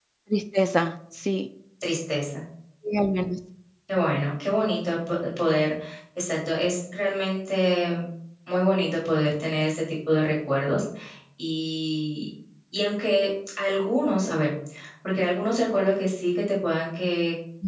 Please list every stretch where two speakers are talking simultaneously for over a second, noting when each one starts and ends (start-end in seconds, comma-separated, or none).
none